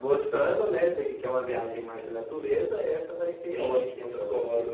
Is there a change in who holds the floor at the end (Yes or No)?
Yes